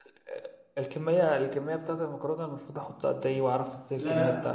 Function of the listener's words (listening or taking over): taking over